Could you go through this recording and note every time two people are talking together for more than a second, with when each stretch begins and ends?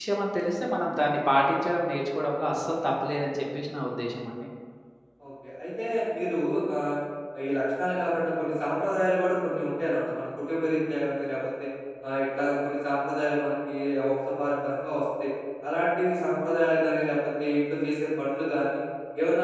none

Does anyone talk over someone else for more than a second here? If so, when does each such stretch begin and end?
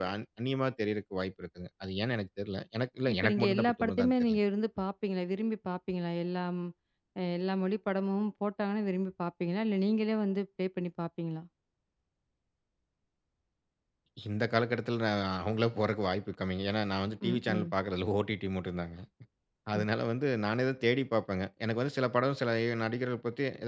3.1-4.4

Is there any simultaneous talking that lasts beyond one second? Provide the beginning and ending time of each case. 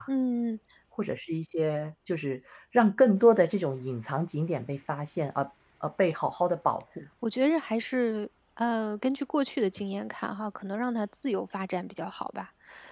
none

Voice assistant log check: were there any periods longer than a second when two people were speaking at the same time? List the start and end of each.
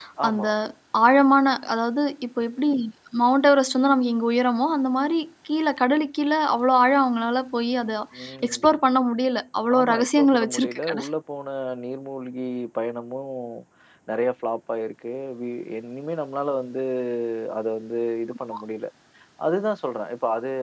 9.8-11.1

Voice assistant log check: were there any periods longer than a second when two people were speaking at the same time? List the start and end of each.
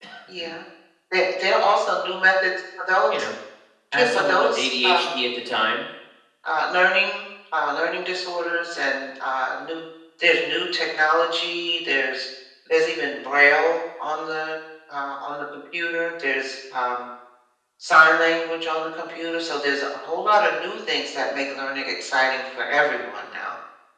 3.9-5.2

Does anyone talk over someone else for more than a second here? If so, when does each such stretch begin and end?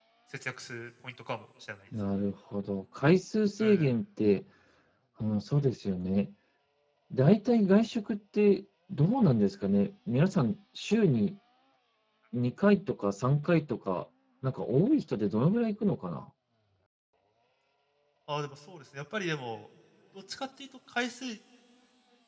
none

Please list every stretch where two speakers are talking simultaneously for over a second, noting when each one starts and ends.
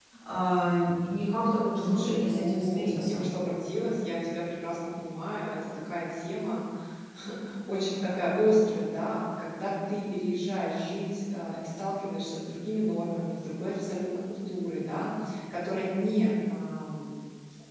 1.8-3.2

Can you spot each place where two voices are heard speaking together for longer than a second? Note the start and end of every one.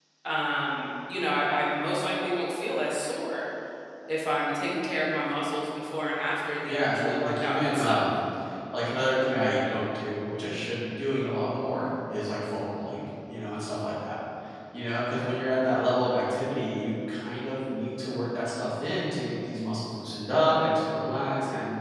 6.7-8.1

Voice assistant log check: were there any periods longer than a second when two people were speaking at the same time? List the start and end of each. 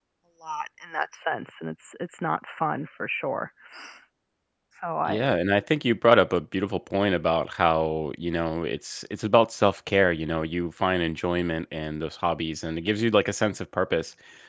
none

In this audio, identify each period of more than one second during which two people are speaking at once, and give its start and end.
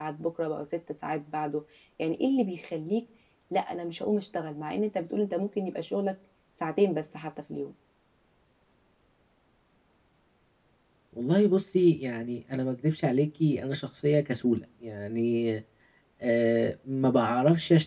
none

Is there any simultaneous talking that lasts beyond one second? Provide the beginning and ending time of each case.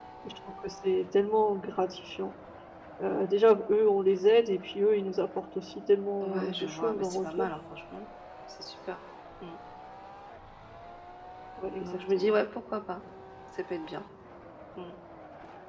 6.2-7.5

